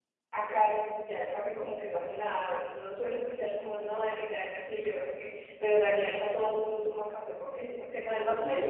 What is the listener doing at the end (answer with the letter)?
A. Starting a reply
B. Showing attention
A